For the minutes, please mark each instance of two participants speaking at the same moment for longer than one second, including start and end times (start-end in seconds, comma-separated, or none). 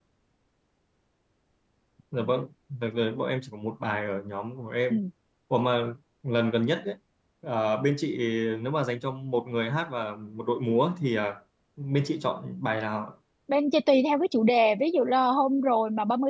none